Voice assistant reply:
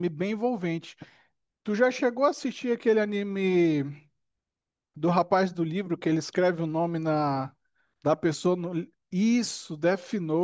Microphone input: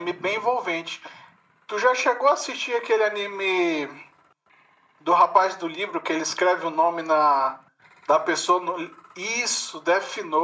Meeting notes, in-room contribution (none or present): none